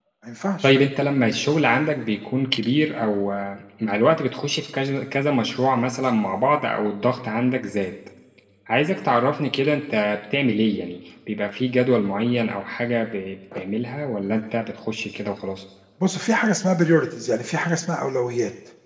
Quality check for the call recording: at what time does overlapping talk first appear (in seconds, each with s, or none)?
none